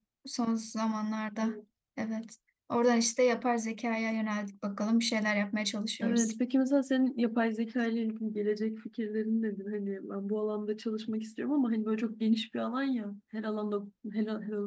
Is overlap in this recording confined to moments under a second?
Yes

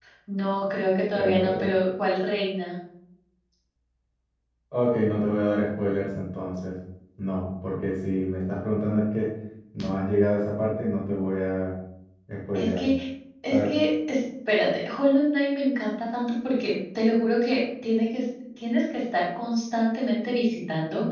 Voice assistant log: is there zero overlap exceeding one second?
Yes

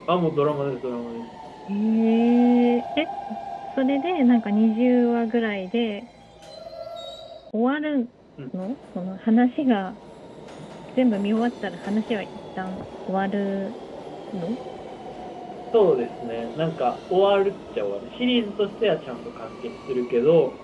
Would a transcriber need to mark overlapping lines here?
No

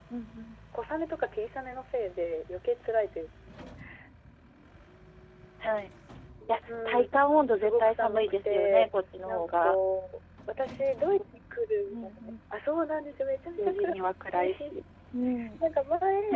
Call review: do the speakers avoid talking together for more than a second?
No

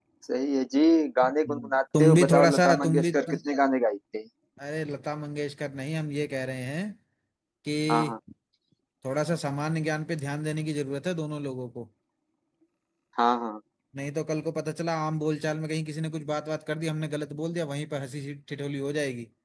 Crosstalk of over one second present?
Yes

